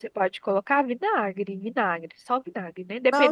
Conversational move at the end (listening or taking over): listening